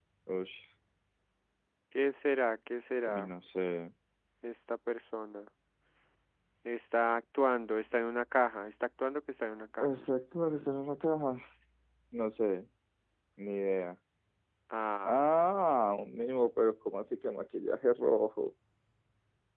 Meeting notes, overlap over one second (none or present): none